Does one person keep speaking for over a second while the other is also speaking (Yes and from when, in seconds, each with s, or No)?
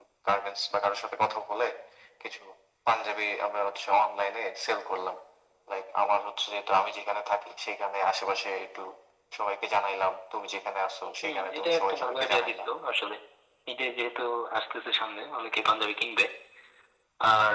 Yes, from 11.2 s